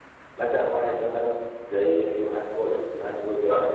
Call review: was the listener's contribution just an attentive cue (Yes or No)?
Yes